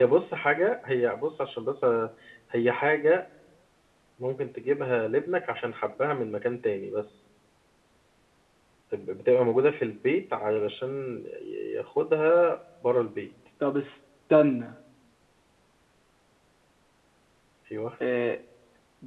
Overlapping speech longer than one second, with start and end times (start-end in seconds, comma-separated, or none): none